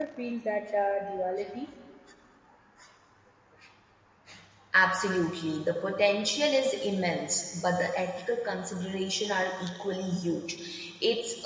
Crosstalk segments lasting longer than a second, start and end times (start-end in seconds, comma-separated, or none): none